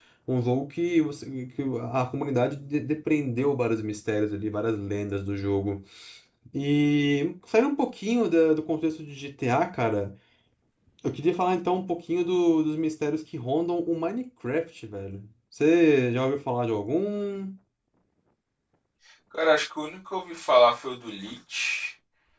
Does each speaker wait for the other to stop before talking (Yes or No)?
Yes